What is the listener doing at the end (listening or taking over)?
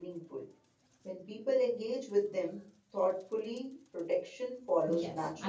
taking over